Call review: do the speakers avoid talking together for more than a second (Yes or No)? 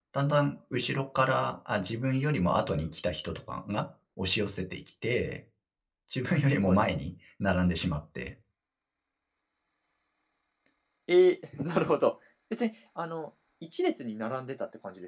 Yes